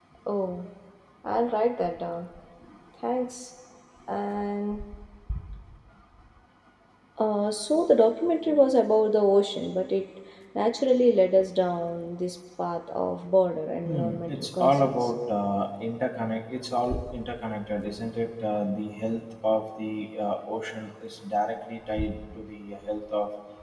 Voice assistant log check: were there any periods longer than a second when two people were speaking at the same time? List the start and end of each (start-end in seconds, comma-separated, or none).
13.8-15.1